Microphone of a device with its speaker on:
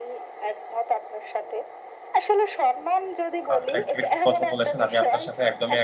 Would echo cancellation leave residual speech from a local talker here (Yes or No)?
Yes